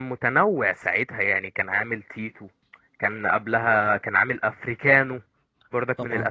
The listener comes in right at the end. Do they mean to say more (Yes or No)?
No